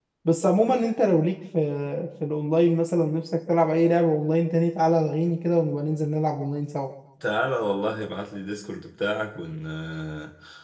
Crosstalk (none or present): none